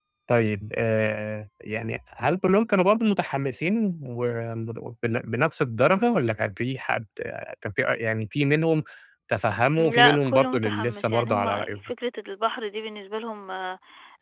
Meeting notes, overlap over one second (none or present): present